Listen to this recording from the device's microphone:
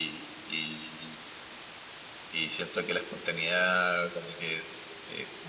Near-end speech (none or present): none